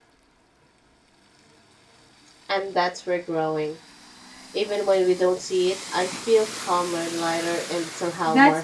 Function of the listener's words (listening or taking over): taking over